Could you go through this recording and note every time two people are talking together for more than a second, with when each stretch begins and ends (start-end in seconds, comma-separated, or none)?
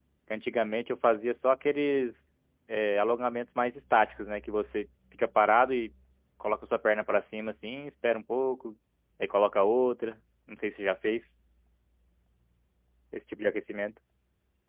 none